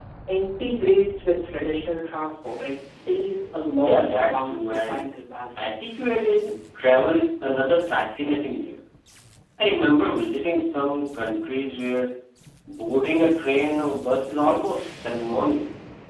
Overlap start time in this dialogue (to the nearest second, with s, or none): 4 s